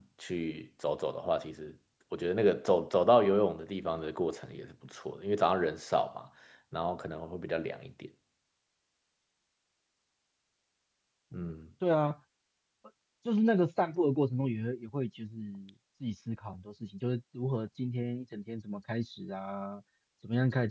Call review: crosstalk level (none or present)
none